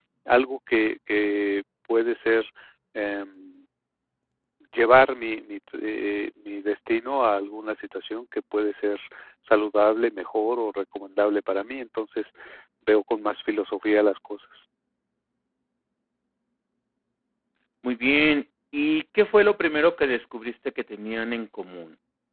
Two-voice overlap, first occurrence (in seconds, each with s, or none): none